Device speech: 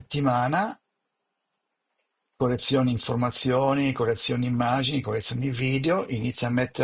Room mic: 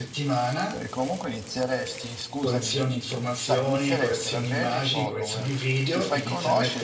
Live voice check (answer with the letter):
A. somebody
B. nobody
A